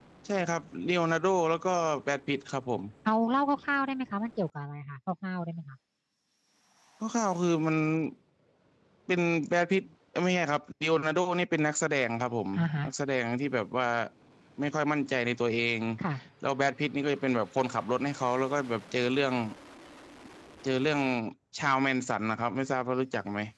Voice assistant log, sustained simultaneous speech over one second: none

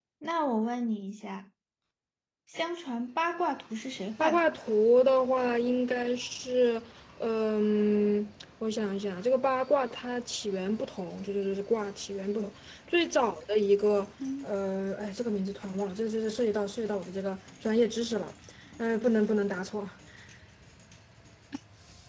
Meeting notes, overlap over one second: none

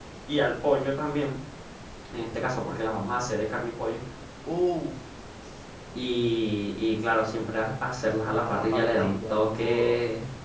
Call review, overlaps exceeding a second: present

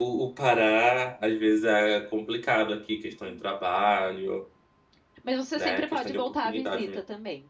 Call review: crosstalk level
present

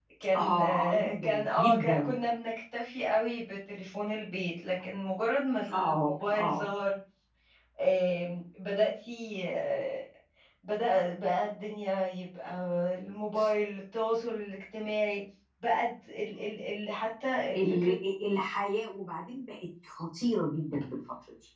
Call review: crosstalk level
present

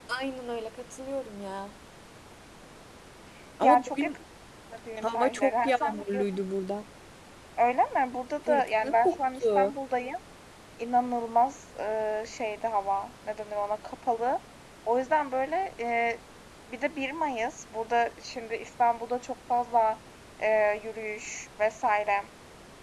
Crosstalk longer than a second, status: present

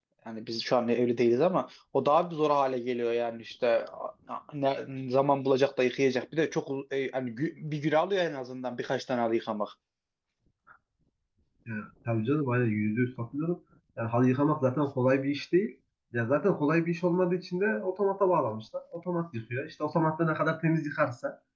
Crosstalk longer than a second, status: none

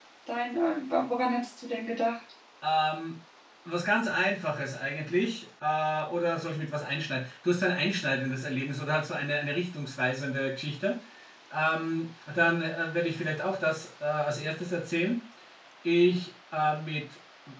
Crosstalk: none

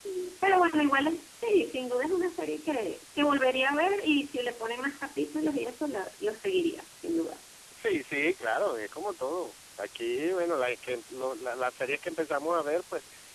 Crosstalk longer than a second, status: none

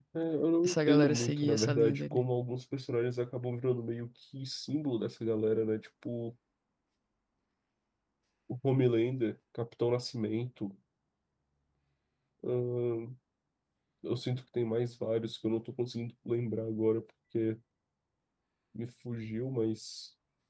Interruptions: present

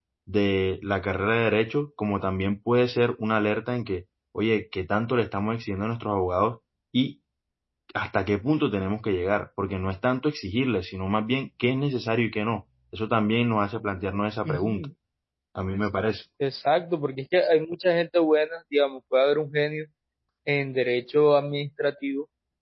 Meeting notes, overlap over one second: none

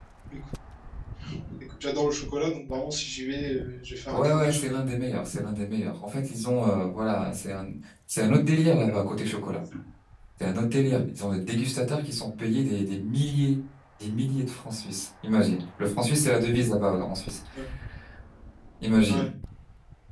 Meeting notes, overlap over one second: none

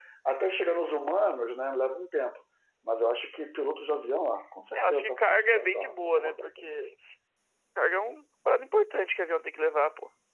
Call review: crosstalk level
present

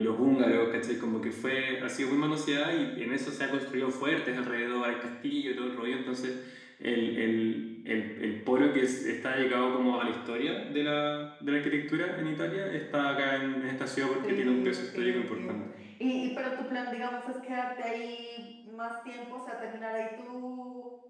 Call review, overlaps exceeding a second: present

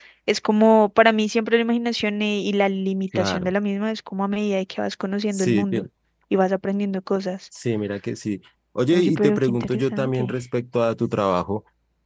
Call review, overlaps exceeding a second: present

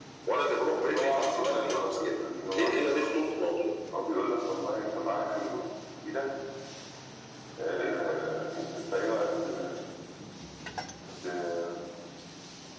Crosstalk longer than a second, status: present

